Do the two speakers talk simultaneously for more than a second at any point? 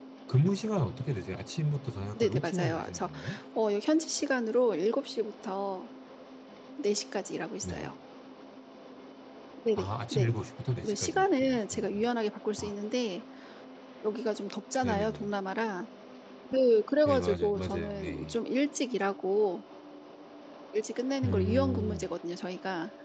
Yes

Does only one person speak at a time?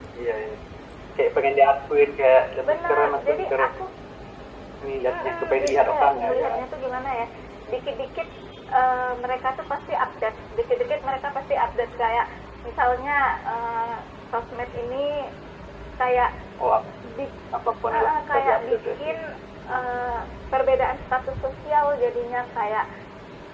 No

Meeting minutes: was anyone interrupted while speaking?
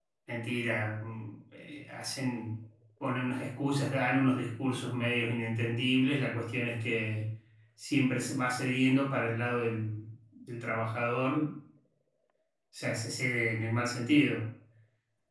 No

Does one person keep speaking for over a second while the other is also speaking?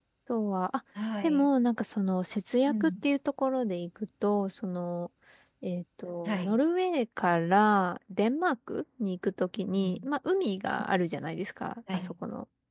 No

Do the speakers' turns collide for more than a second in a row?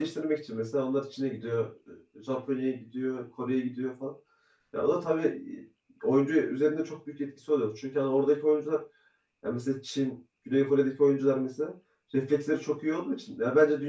No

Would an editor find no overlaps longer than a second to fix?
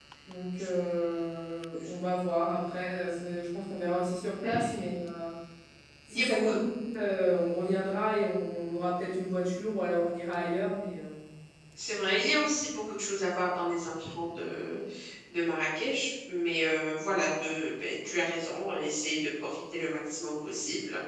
Yes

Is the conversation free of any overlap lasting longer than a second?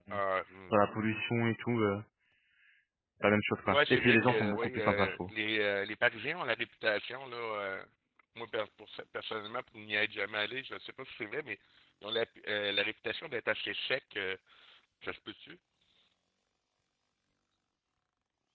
No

